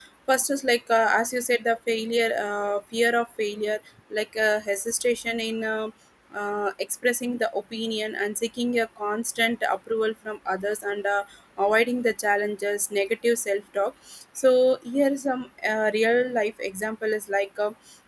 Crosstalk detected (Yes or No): No